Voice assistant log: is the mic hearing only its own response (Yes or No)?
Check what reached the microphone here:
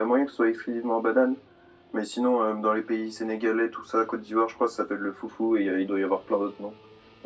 Yes